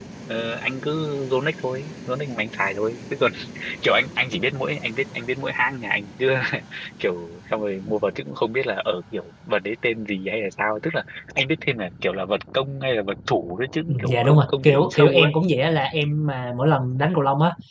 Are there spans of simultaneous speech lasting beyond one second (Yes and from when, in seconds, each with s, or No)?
Yes, from 13.9 s